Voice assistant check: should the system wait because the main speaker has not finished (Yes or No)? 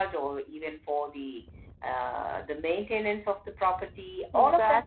No